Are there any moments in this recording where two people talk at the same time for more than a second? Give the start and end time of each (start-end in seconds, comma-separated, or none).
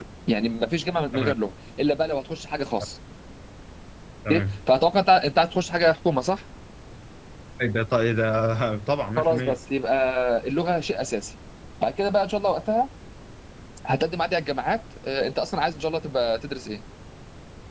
none